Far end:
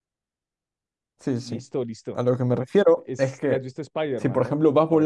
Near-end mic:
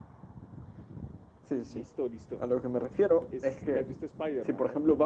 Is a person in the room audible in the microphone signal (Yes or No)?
No